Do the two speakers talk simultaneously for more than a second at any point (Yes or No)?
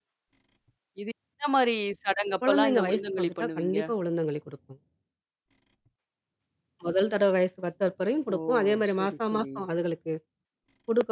Yes